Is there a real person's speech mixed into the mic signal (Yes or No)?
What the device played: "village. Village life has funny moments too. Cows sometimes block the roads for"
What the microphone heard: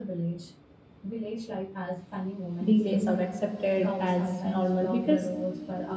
Yes